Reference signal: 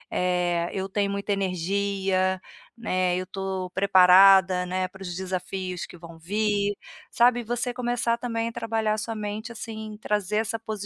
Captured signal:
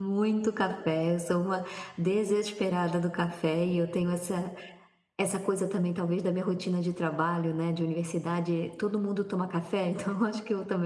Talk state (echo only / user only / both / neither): user only